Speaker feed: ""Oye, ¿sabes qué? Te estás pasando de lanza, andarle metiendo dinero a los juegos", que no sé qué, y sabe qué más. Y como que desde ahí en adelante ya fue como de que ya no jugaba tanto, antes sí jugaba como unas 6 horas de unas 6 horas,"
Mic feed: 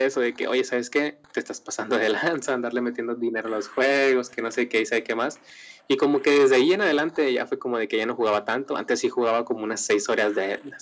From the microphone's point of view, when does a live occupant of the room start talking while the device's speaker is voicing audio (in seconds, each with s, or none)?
none